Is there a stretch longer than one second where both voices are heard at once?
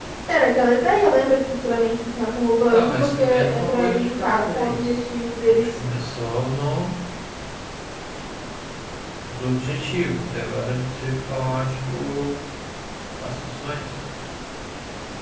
Yes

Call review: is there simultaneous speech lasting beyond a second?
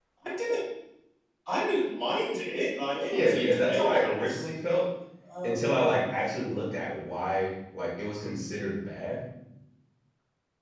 Yes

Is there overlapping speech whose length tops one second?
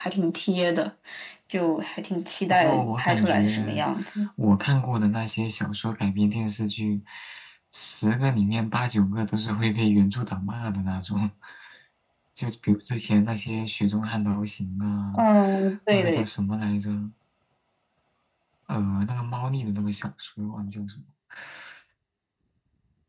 Yes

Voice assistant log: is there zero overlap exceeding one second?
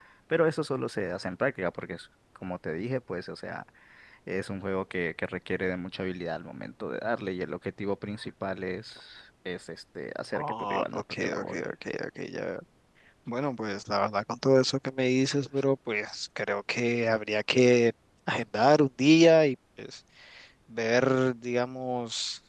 No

